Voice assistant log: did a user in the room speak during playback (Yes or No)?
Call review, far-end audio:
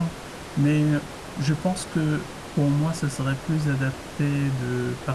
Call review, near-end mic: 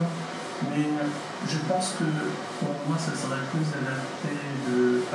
No